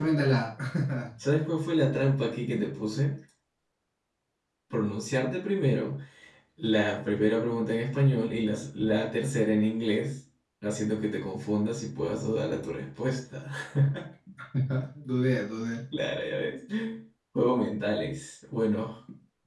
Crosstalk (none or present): none